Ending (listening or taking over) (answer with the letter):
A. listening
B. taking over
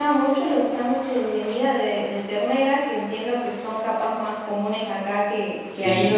B